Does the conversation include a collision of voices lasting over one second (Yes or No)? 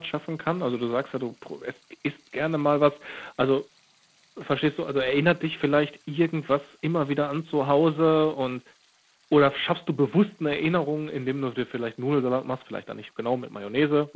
No